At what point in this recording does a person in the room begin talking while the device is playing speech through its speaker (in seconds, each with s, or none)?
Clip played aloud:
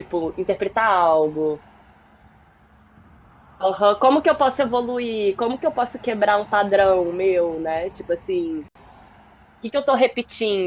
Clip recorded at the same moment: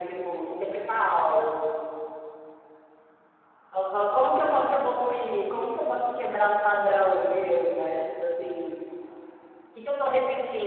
none